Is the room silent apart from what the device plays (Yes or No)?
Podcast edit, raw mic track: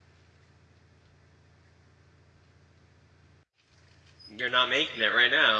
No